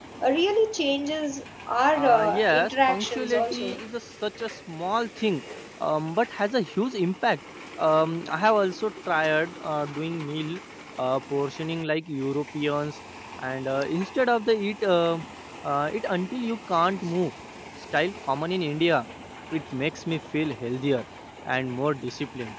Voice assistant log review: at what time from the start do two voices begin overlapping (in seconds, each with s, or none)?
1.9 s